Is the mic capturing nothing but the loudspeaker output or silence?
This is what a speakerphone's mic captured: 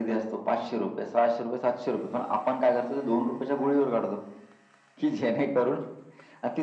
Yes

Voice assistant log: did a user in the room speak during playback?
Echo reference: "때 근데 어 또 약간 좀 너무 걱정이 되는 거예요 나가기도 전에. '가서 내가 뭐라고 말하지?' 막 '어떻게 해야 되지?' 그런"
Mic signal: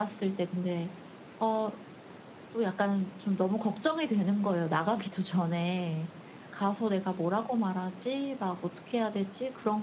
No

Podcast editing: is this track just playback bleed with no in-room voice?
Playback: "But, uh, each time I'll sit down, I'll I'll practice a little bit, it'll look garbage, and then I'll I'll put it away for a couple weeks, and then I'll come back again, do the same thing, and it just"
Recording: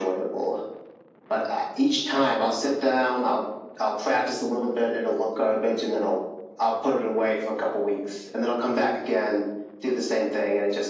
Yes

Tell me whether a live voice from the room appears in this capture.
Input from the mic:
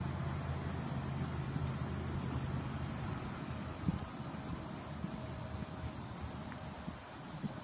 No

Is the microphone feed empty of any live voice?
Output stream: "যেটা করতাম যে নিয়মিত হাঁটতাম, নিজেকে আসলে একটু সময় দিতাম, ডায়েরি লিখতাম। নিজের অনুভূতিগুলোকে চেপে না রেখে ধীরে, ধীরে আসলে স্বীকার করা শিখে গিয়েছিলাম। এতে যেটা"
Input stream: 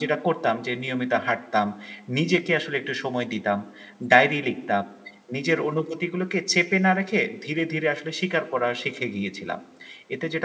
Yes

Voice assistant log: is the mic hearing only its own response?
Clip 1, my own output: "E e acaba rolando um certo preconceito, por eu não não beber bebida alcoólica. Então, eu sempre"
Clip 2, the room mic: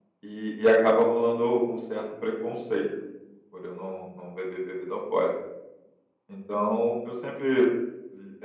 Yes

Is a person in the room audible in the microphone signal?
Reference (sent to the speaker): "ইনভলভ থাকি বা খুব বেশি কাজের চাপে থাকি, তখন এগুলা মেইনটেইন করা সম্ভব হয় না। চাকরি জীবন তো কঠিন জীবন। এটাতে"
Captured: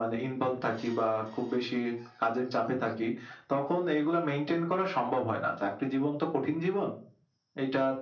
No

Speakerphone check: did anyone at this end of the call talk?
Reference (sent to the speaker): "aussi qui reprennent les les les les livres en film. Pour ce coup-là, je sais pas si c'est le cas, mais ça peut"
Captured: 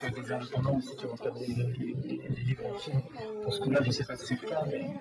Yes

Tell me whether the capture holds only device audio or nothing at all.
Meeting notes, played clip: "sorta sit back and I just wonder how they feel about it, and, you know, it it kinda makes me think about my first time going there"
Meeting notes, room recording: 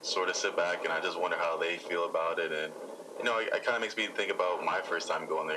Yes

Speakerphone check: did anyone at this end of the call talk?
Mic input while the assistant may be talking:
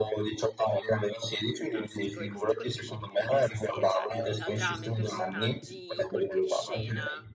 Yes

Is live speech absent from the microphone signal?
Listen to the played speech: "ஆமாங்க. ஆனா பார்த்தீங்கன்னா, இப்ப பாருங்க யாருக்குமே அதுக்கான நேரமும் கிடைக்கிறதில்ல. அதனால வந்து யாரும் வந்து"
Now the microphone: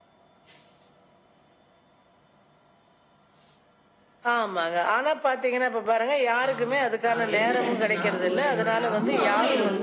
No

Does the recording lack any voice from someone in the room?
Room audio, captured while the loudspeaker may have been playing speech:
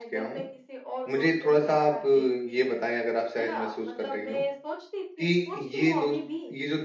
No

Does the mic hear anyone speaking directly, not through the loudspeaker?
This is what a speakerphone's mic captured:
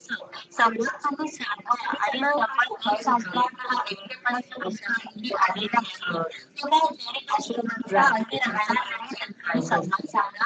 No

